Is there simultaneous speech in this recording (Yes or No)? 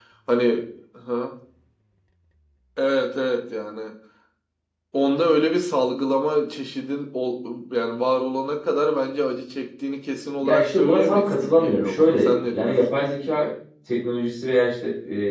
Yes